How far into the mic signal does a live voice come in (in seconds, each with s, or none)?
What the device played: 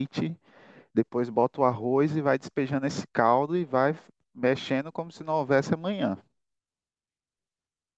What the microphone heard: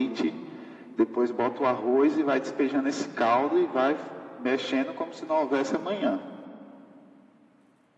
none